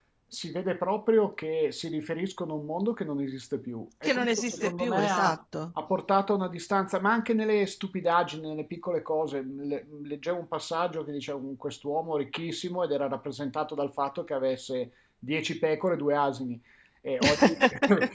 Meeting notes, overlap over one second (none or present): present